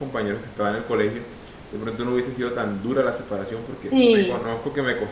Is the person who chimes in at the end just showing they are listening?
Yes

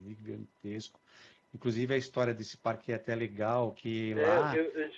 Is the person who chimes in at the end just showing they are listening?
No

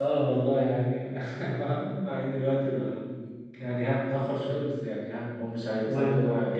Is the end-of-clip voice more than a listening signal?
No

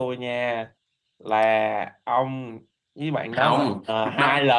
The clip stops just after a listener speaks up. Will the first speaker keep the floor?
No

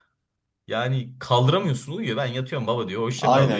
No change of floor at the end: No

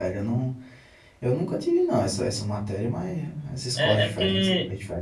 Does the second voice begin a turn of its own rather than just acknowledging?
Yes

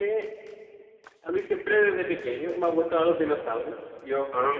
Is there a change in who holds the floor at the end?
No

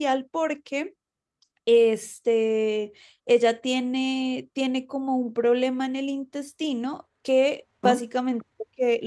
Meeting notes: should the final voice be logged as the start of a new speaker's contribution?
No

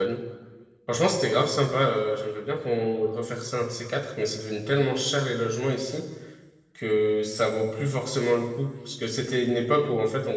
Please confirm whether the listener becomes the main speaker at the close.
No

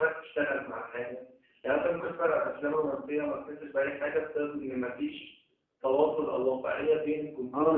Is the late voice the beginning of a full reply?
Yes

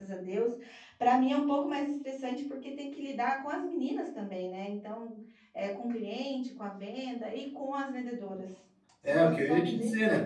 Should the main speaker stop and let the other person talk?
Yes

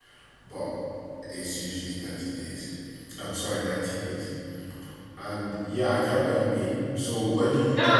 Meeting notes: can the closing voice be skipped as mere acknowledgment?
No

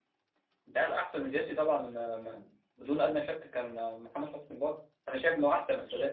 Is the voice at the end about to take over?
No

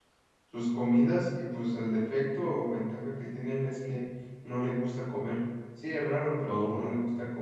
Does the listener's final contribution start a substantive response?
No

